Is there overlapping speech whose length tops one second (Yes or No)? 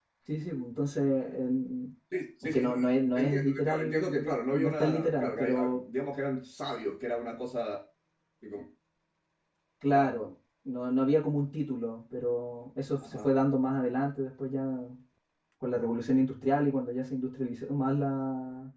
Yes